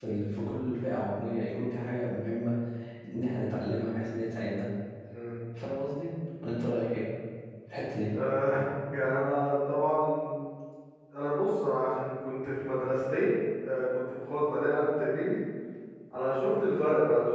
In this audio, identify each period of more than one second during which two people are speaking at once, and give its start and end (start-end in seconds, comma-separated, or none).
none